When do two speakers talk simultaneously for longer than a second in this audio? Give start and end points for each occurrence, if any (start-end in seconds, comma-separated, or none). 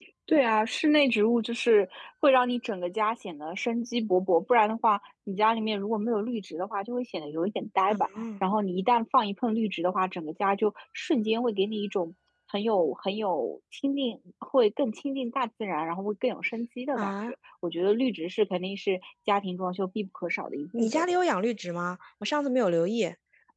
none